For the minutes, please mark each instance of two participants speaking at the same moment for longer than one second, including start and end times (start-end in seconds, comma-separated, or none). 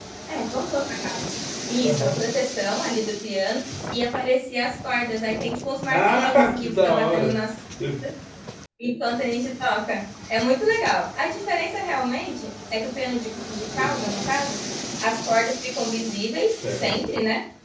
5.9-7.4